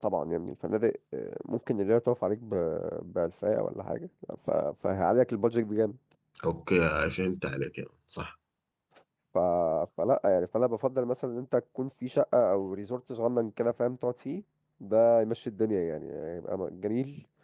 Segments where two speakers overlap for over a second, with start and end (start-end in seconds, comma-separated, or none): none